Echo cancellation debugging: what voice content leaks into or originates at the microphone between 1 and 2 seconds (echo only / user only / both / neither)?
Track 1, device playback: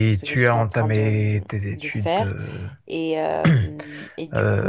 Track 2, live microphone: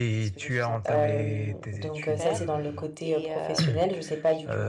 both